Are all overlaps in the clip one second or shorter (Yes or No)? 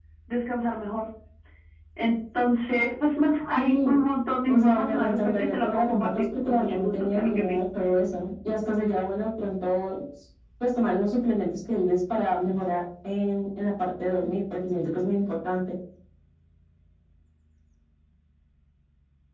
No